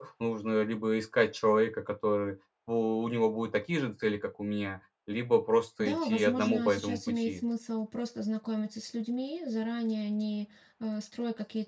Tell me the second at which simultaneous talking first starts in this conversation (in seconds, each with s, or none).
5.8 s